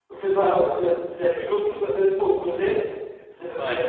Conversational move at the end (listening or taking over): listening